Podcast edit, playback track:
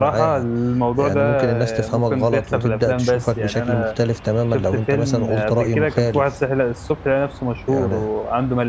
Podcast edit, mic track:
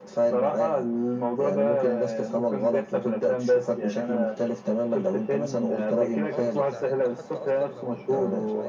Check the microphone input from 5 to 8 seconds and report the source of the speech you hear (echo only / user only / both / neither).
both